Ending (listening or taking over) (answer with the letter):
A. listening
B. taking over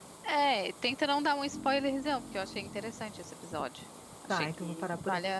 B